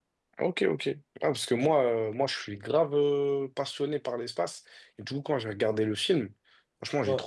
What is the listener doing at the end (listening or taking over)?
listening